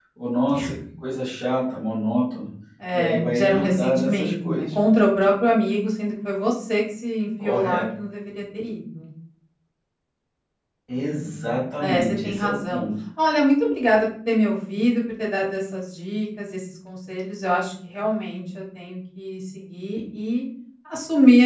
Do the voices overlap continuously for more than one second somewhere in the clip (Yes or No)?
Yes